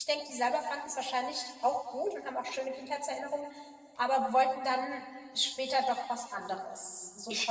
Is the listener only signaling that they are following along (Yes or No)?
No